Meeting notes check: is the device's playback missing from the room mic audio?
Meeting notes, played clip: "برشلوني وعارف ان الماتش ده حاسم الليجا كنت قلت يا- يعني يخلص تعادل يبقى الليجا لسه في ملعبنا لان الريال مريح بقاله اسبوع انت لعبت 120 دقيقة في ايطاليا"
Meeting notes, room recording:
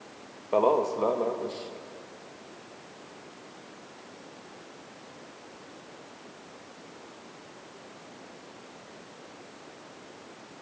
Yes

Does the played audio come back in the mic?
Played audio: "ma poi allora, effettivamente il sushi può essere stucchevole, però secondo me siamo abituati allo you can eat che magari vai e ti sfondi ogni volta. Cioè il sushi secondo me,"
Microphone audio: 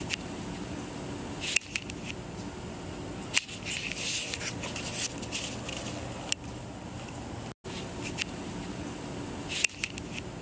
No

